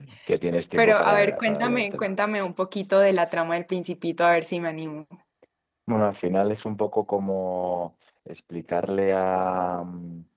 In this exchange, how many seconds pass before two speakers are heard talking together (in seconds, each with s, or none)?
0.8 s